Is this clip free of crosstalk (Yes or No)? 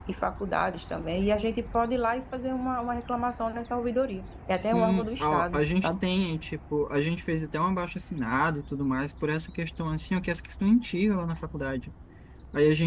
No